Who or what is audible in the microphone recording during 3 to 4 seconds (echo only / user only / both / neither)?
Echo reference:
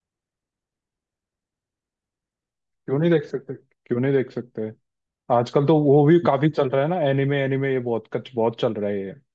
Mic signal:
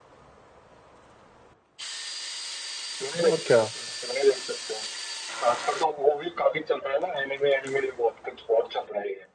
both